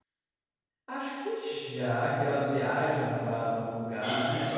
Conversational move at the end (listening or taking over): taking over